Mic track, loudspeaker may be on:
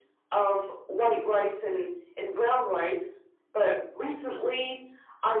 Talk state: echo only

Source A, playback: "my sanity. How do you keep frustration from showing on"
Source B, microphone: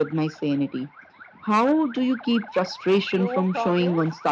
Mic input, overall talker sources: both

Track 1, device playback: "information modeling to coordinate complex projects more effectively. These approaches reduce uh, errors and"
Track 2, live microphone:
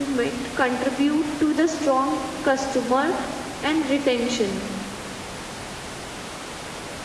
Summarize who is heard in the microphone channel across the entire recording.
user only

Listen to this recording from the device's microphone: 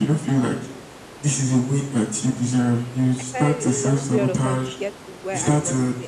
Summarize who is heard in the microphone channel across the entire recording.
both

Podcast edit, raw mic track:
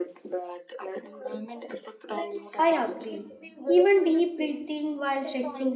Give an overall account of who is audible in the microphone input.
both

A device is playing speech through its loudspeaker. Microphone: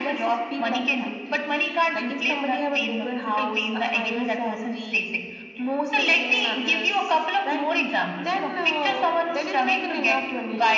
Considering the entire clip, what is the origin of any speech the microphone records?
echo only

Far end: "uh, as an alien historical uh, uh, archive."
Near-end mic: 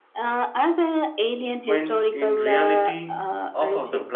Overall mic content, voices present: both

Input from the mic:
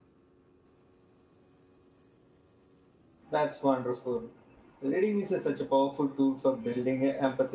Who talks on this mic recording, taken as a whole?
user only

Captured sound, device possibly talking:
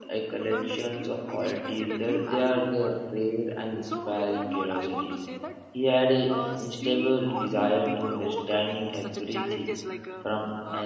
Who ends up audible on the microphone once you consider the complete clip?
both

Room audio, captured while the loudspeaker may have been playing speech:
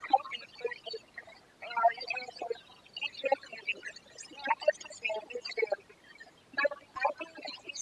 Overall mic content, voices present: echo only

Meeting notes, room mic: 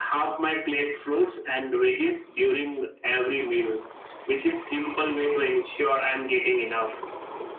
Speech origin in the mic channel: echo only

